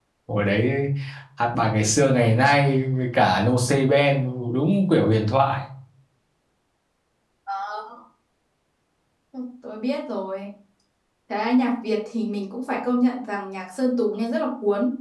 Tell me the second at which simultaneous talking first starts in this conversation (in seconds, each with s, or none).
none